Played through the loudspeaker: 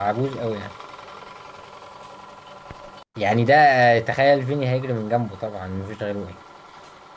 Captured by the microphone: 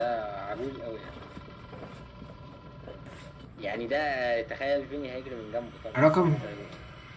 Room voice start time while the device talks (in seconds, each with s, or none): 6.0 s